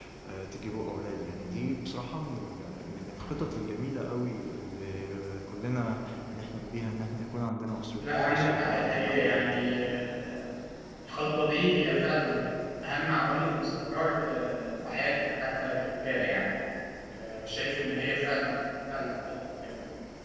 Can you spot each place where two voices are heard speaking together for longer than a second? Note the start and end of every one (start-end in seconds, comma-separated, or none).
8.0-9.5